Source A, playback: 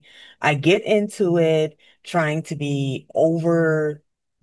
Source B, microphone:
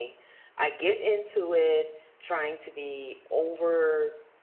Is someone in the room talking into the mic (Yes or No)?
No